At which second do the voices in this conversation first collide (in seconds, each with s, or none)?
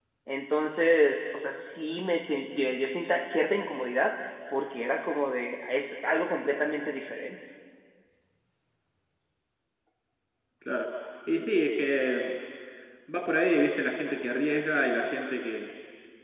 none